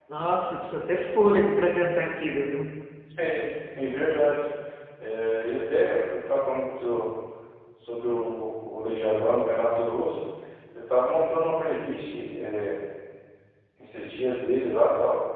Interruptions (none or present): none